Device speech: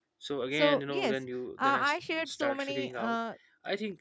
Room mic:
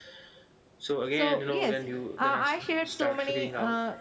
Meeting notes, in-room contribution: none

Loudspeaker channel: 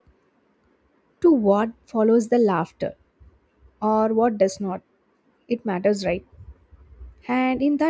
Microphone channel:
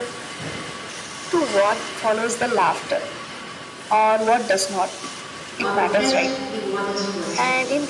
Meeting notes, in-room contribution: present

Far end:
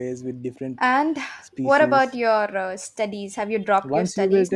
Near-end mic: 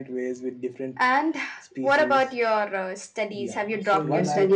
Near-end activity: present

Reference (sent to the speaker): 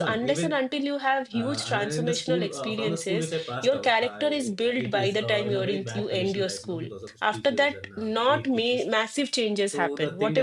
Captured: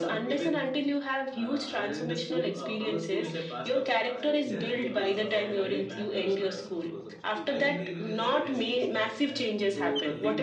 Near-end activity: present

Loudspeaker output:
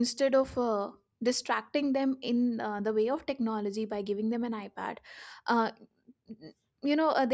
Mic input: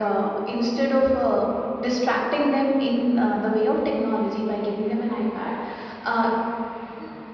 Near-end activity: none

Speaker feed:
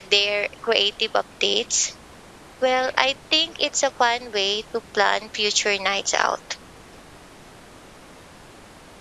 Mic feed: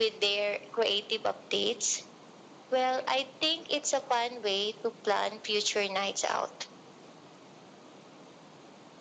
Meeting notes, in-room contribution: none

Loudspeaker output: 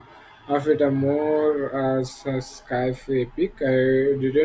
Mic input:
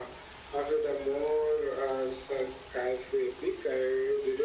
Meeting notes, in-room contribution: none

